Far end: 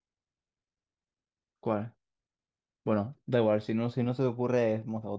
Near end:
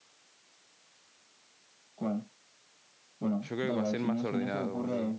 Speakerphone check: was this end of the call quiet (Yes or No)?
No